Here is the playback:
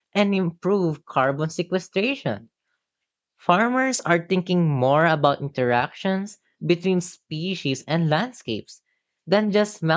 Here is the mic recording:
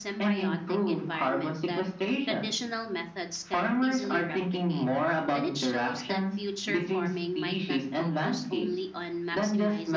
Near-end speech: present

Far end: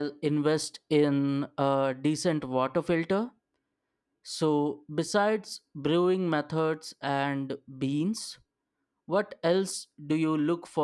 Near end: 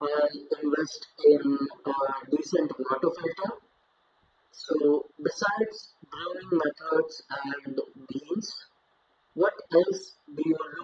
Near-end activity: none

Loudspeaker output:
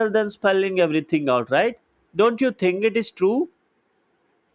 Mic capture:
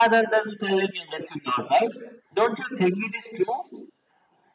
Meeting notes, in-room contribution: none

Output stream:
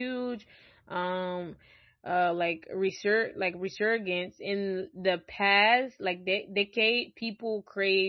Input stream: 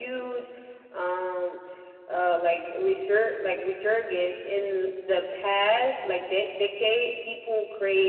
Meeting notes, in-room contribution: none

